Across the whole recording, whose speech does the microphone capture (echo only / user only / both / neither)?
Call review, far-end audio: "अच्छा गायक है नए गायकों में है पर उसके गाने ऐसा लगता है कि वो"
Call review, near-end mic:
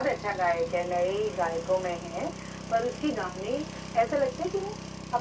echo only